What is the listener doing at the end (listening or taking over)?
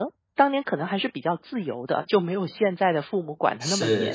taking over